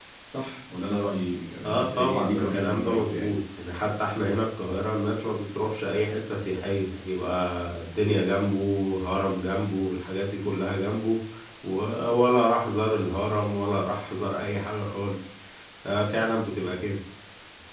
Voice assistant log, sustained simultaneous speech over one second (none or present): present